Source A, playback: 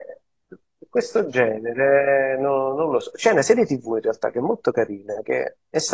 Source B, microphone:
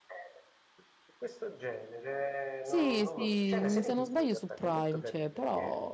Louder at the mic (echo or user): user